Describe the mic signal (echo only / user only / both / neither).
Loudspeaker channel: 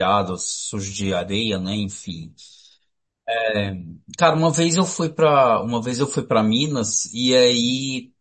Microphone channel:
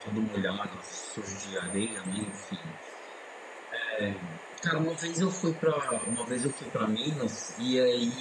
echo only